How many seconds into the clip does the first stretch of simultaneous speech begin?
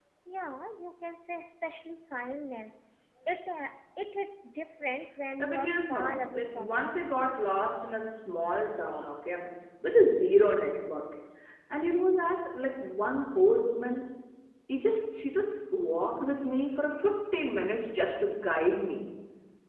5.4 s

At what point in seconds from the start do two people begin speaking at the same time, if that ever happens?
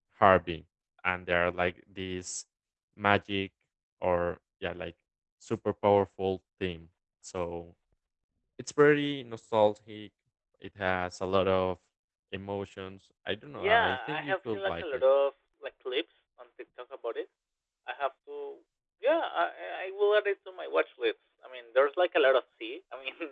13.6 s

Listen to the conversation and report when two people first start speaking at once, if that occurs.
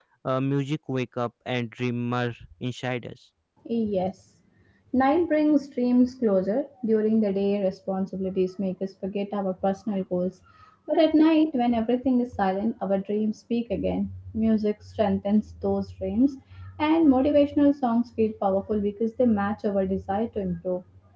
none

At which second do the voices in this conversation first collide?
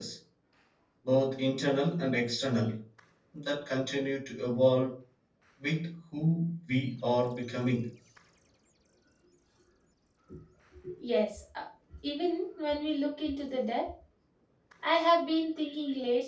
none

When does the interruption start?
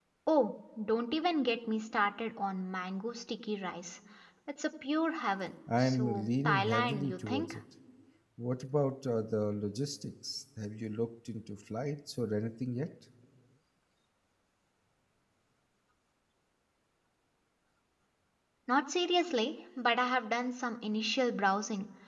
5.7 s

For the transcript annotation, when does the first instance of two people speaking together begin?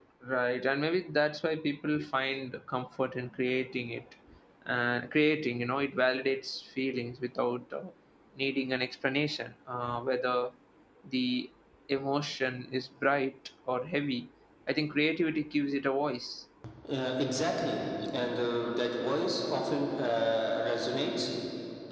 none

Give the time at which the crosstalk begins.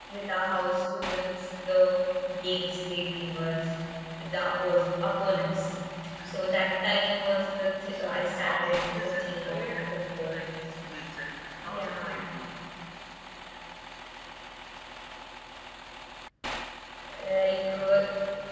7.9 s

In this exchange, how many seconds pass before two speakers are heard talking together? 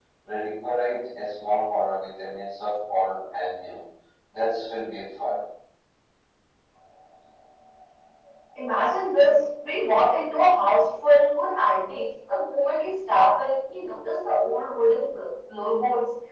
none

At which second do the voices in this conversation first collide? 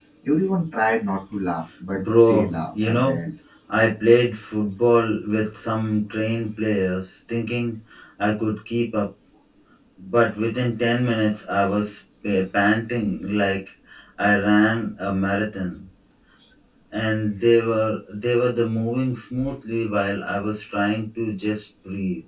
1.9 s

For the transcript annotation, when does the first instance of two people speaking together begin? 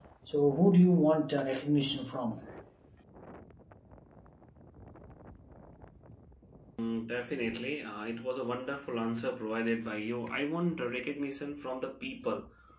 none

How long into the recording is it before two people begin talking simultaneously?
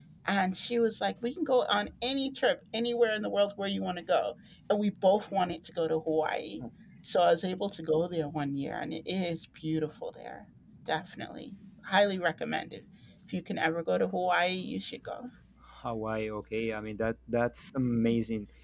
none

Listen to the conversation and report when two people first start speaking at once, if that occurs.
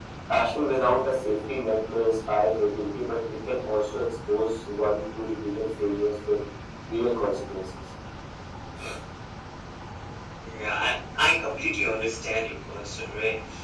none

